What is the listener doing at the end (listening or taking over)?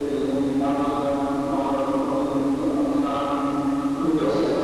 listening